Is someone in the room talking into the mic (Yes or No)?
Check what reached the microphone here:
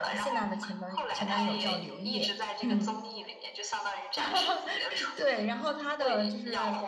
Yes